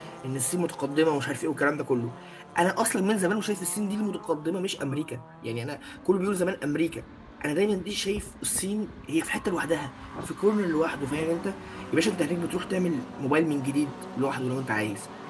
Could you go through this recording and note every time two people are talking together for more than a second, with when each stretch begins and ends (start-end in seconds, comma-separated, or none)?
none